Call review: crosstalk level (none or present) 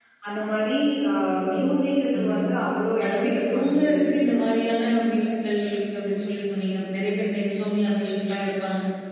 present